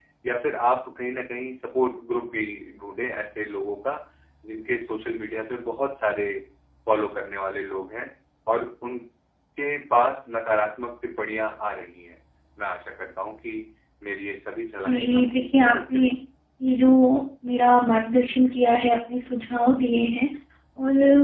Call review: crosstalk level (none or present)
present